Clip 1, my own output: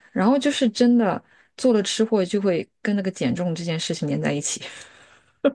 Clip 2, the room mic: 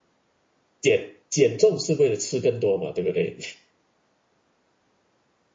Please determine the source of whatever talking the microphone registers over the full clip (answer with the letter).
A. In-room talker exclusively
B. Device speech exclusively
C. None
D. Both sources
A